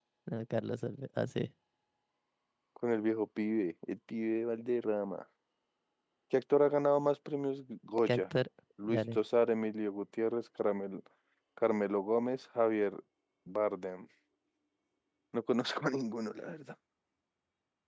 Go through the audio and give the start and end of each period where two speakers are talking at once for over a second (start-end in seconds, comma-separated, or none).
none